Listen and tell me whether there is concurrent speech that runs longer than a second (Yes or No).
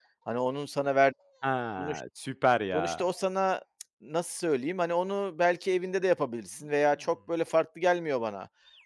No